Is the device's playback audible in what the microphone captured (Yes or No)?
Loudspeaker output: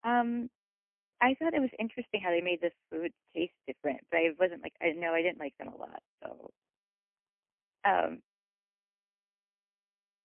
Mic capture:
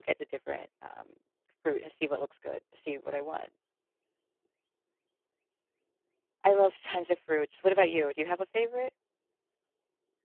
No